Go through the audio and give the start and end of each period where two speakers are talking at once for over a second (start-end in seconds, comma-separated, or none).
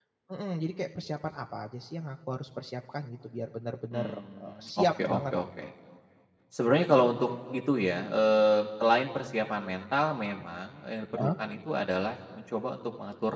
3.9-5.2